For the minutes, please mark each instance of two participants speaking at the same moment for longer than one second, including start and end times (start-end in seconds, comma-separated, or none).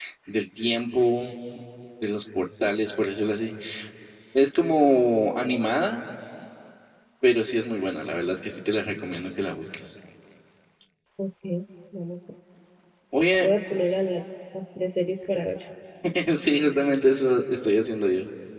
none